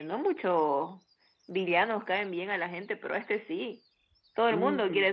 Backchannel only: No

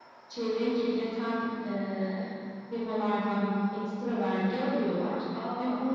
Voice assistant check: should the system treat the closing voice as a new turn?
No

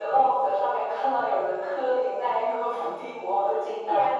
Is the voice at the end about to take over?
Yes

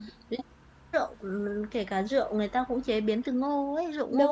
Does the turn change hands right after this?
Yes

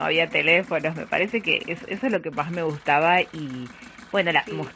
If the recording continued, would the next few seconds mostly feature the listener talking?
No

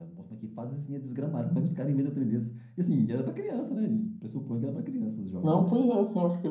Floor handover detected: Yes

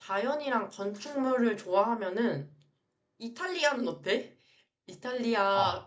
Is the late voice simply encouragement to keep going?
Yes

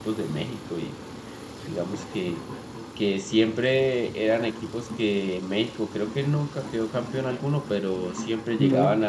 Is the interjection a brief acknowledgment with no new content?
Yes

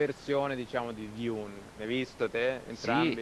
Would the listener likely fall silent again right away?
No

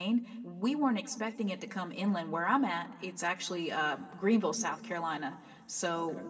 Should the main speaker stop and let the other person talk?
No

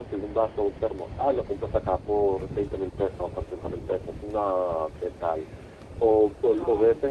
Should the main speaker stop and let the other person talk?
No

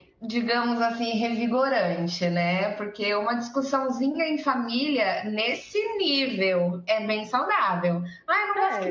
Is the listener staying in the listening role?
Yes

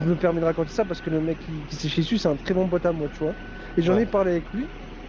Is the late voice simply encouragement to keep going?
Yes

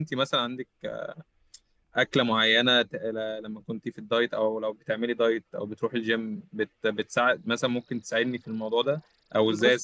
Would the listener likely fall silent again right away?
Yes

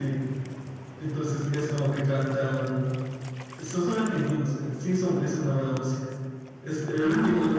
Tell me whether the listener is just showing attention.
Yes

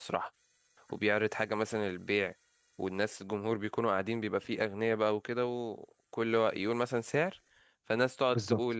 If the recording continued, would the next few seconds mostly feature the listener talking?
No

